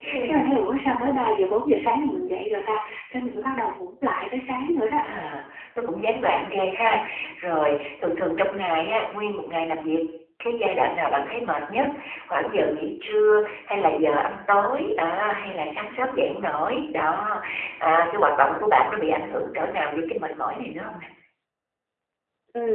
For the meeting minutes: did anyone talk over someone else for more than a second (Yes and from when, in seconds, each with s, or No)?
No